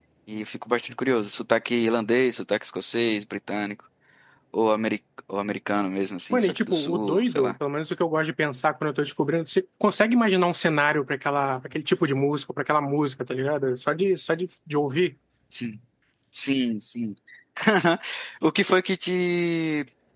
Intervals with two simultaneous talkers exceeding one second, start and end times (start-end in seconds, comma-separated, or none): 6.3-7.5